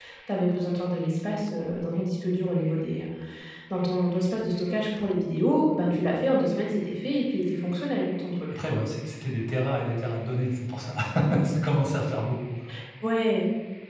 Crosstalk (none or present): none